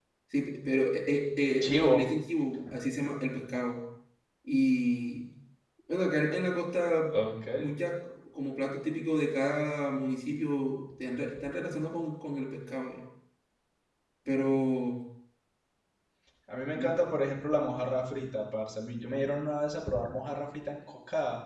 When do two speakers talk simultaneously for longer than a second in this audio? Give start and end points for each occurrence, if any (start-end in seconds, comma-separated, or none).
none